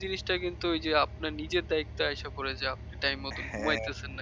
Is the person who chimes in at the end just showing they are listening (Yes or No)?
Yes